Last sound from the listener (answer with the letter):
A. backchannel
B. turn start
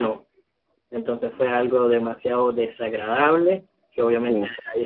A